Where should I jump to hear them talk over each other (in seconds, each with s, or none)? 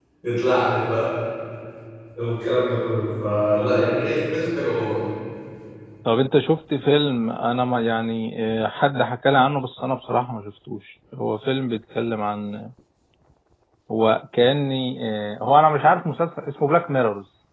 none